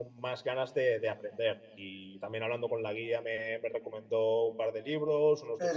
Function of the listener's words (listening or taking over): taking over